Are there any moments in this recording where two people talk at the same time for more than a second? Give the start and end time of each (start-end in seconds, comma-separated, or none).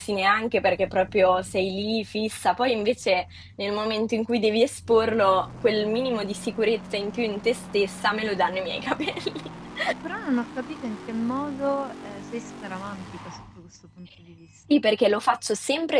none